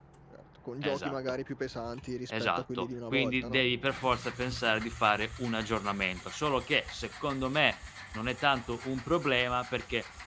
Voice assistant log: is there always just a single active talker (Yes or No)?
No